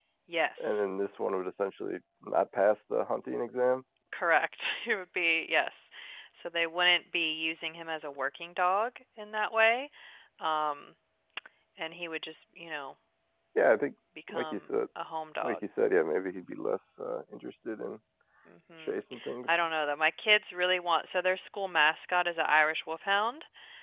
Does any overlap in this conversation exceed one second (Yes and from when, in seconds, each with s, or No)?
No